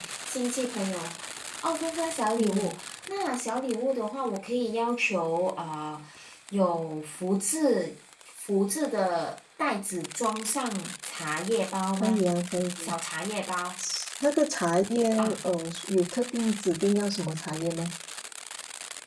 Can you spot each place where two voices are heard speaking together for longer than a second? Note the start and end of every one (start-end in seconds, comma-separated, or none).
none